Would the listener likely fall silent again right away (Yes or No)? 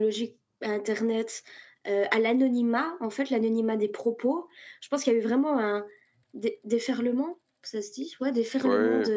Yes